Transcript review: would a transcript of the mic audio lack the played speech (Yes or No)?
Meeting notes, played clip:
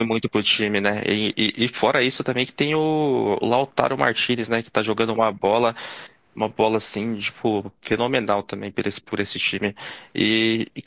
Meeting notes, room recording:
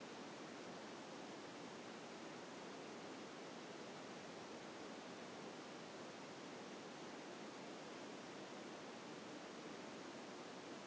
Yes